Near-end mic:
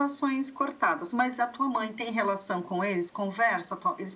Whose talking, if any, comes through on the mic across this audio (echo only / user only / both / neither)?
echo only